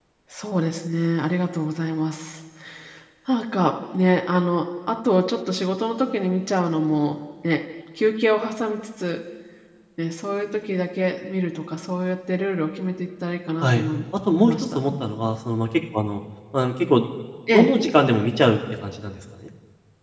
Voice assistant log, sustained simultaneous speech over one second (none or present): none